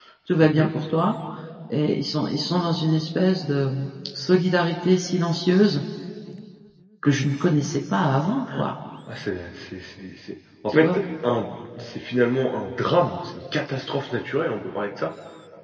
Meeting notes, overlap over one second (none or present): none